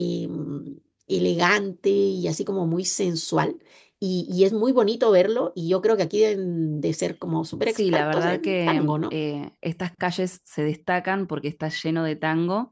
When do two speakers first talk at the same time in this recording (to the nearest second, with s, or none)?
8 s